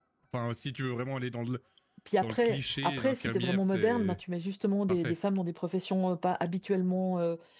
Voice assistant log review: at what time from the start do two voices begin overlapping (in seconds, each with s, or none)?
2.2 s